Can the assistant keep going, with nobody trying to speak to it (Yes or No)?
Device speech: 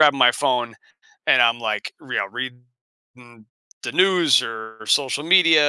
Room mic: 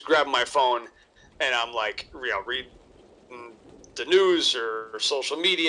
Yes